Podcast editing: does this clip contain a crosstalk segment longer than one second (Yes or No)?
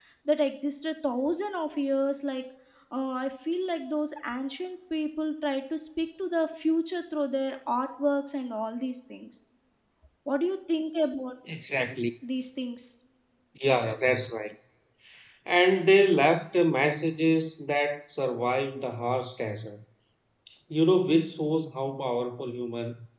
No